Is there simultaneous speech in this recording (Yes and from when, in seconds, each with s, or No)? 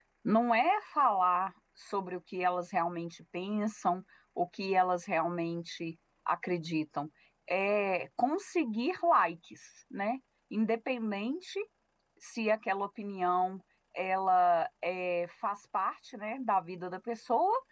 No